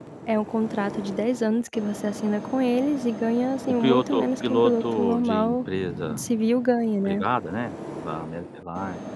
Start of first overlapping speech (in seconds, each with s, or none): 3.7 s